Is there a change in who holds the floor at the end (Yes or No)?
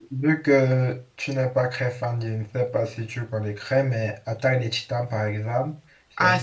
Yes